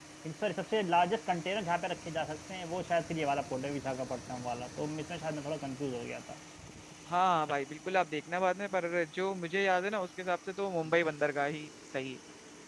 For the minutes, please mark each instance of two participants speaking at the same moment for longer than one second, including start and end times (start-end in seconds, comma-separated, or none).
none